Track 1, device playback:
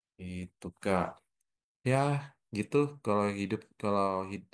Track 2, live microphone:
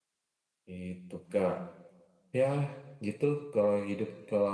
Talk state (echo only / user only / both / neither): echo only